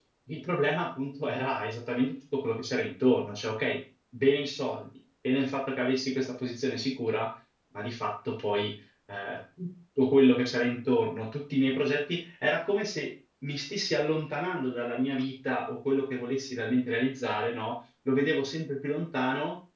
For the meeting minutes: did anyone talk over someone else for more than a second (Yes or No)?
No